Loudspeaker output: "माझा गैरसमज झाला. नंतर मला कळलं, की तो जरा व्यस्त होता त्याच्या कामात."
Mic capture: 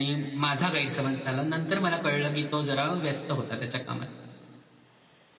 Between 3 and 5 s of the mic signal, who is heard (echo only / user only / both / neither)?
echo only